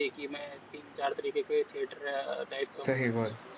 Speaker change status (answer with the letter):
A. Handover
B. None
B